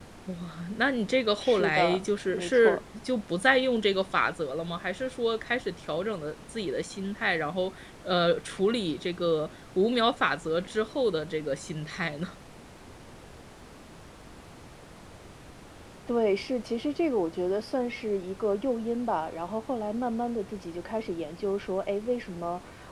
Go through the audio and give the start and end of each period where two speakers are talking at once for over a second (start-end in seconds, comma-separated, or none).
1.4-2.8